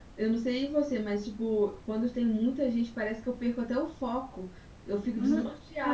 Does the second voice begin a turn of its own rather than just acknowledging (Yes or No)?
Yes